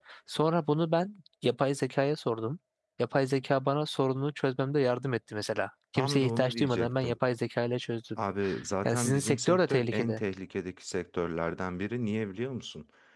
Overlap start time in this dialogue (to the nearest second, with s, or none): 6 s